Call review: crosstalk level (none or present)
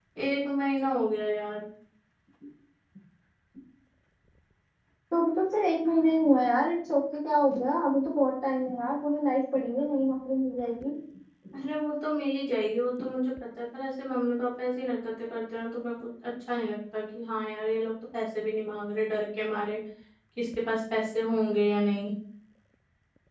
none